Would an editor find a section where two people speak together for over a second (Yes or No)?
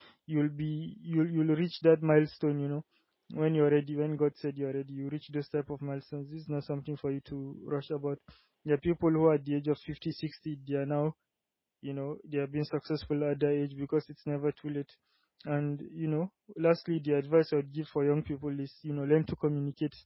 No